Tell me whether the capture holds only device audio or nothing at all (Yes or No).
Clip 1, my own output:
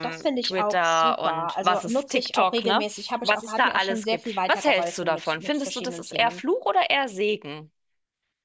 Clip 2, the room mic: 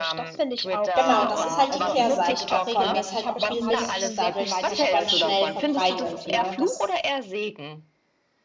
No